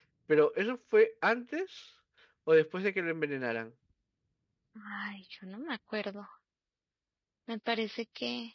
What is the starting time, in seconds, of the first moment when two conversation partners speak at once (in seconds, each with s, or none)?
none